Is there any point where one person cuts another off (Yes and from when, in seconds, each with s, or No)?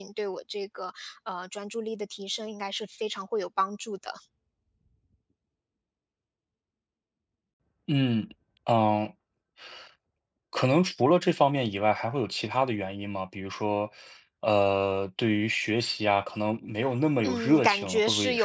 Yes, from 17.2 s